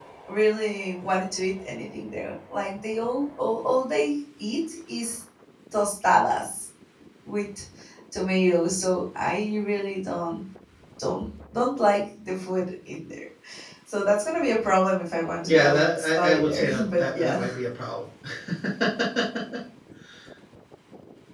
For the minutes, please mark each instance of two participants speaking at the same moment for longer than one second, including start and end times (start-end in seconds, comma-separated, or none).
15.4-17.4